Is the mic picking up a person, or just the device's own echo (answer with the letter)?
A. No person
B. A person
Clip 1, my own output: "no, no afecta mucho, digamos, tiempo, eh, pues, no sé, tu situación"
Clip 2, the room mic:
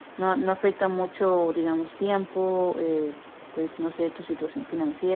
A